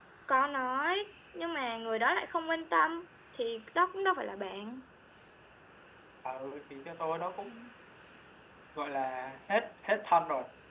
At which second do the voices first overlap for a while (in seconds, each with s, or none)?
none